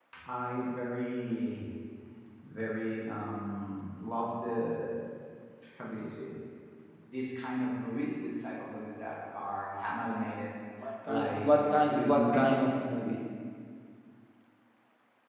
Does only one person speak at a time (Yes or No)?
No